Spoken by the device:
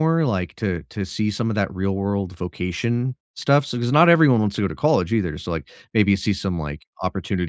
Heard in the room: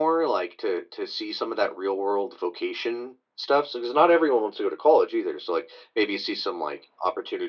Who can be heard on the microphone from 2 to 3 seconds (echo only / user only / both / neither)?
echo only